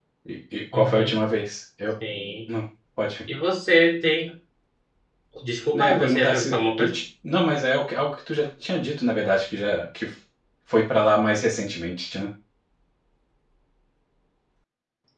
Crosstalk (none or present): present